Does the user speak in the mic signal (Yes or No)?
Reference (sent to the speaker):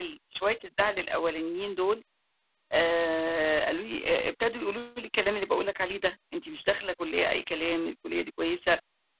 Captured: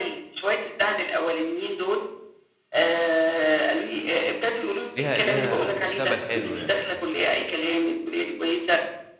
Yes